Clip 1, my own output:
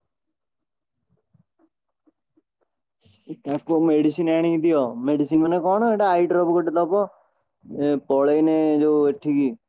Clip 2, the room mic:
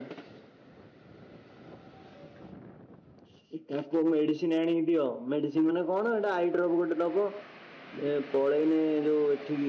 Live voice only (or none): none